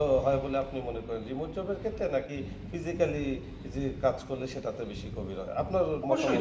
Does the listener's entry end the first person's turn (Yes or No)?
Yes